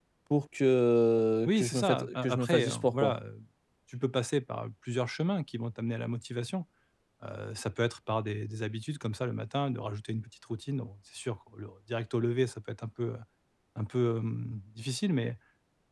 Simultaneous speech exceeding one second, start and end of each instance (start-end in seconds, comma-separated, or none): 1.5-3.1